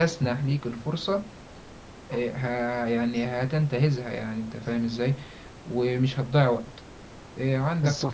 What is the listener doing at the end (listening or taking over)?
listening